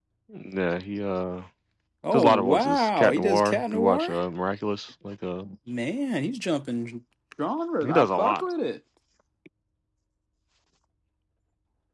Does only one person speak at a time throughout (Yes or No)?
No